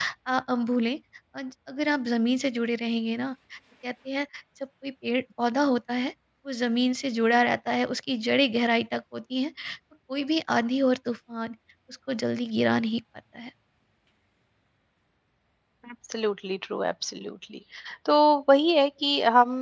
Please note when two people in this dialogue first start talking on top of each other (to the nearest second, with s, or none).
none